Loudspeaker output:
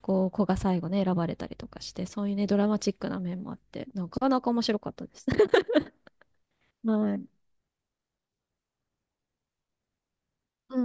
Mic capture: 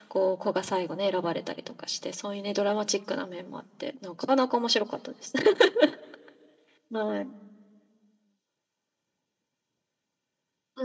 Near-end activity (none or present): none